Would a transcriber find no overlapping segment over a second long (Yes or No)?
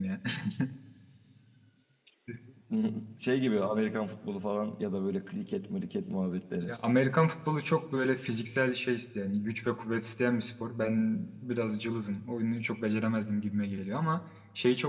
Yes